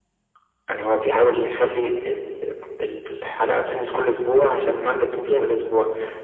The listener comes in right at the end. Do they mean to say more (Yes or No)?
No